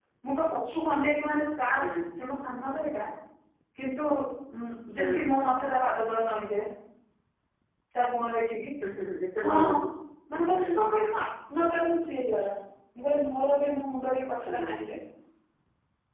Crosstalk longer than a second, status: none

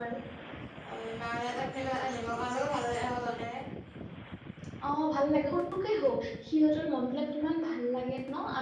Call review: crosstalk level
none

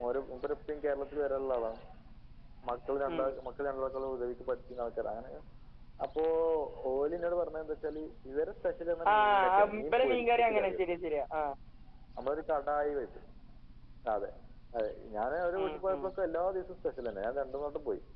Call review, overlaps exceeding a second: present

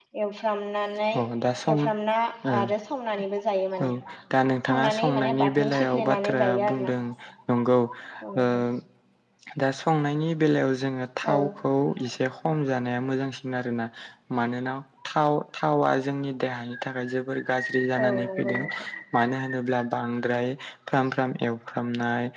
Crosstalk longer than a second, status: present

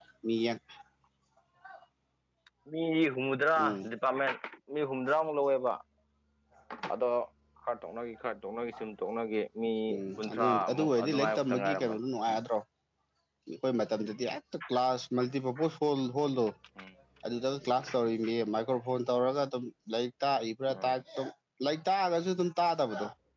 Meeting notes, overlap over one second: present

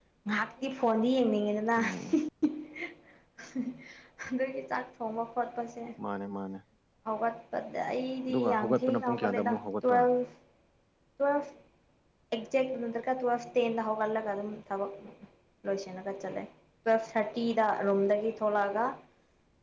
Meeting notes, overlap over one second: present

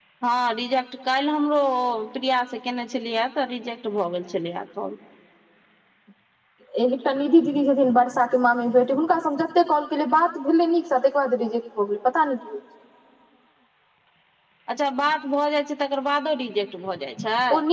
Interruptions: none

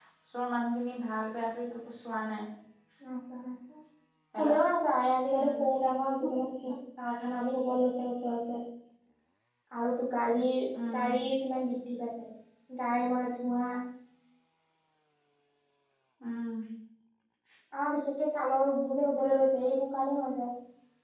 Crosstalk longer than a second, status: none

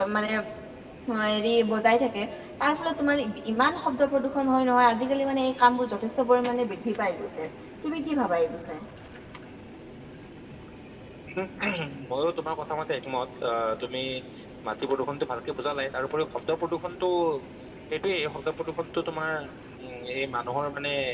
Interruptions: none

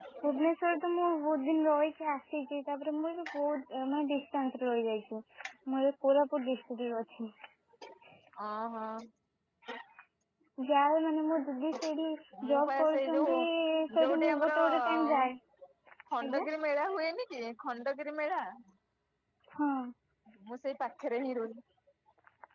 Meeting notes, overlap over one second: present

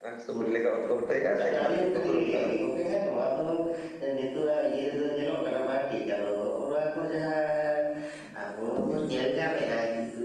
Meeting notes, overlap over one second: present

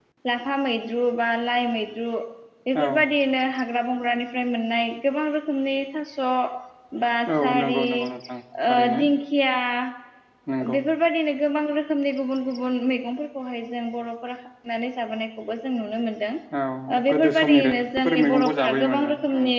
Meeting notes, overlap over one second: present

